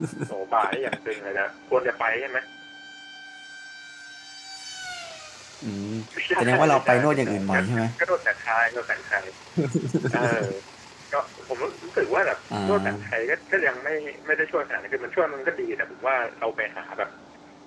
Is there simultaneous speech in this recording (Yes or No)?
Yes